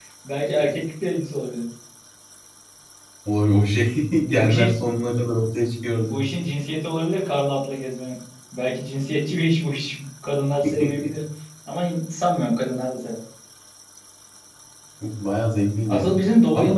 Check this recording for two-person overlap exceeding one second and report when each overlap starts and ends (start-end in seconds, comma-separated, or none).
none